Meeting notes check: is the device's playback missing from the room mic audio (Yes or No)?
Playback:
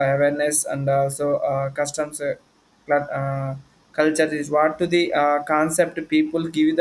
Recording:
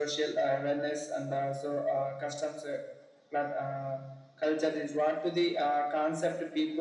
No